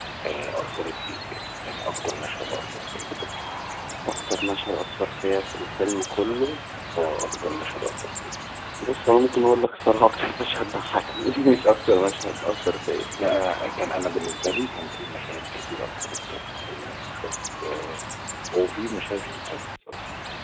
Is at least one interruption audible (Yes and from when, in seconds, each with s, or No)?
No